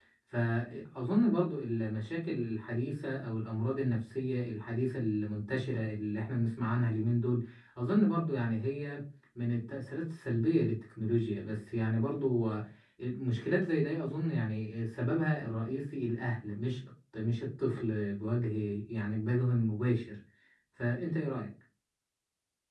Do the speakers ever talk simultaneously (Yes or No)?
No